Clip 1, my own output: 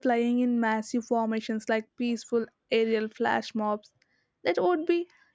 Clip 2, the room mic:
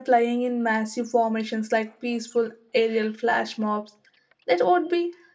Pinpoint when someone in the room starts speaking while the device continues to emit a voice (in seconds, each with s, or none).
none